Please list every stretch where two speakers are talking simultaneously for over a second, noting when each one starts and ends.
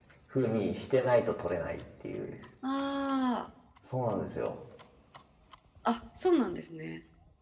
none

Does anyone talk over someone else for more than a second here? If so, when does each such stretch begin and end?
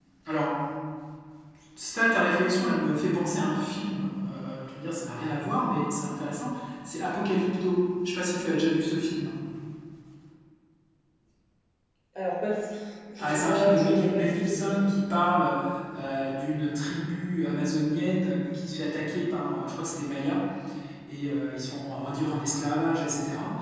13.2-14.8

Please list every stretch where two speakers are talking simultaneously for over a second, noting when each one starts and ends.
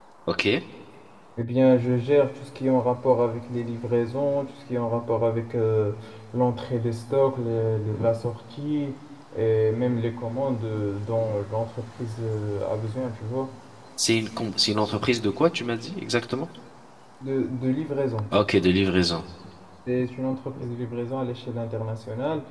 none

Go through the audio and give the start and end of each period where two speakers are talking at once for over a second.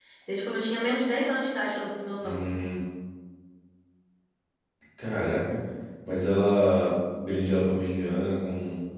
none

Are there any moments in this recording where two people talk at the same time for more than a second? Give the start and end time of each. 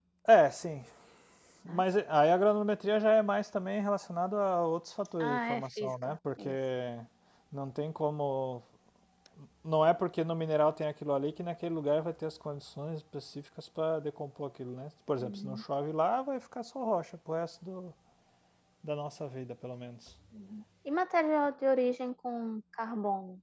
5.2-6.5

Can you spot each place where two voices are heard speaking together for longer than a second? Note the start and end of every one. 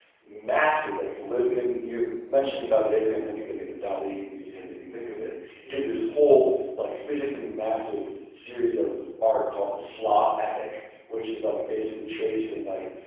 none

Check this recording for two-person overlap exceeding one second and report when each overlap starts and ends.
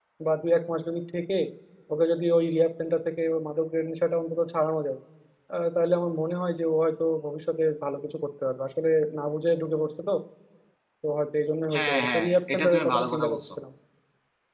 11.7-13.4

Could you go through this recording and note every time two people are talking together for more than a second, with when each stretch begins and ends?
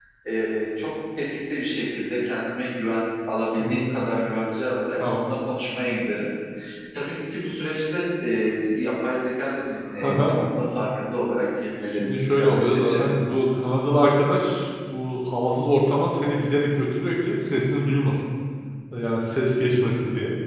11.9-13.1

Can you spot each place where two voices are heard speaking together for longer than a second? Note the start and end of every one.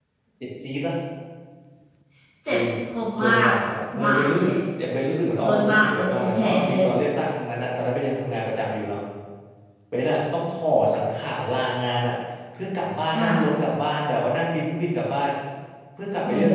5.4-6.8

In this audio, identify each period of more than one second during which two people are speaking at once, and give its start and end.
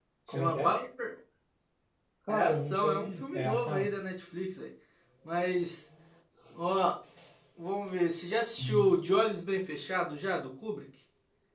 2.3-3.8

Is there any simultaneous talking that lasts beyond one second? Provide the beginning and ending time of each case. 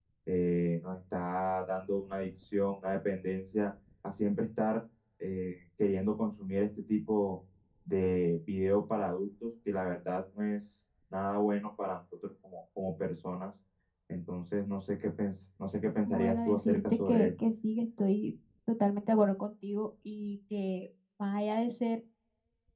16.1-17.3

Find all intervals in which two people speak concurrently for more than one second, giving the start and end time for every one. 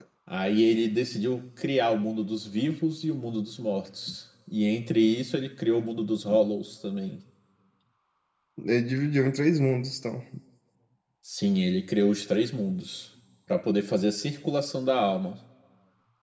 none

